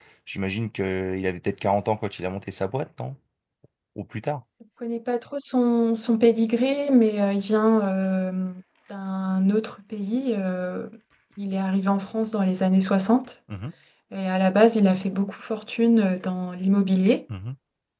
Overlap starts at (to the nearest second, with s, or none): none